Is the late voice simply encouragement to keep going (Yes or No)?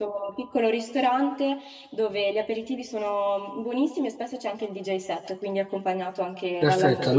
No